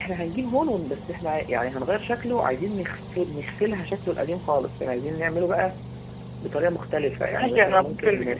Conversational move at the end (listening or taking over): taking over